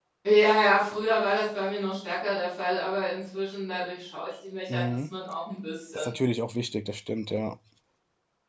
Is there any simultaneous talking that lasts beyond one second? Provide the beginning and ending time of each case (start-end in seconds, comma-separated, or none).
none